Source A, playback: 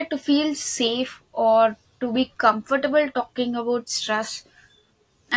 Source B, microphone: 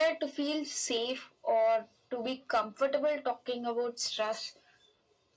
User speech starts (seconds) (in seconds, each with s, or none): none